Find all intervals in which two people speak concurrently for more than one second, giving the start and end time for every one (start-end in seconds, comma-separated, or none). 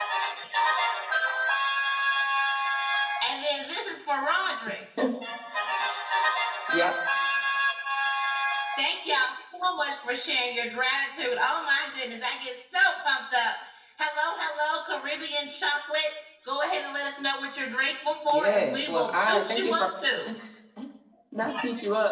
18.3-19.9